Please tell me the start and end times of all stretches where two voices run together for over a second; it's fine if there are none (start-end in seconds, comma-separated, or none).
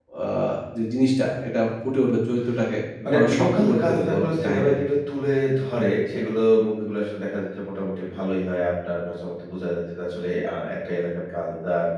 3.2-4.8